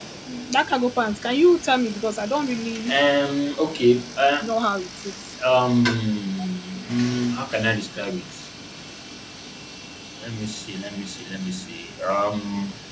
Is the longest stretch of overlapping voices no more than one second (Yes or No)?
Yes